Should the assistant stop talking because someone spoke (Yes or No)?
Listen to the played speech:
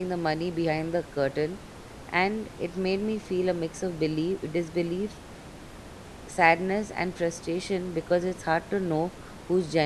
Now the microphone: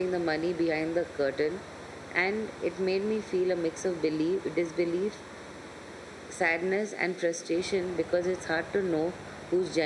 No